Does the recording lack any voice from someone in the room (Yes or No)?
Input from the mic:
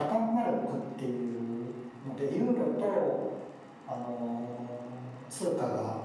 Yes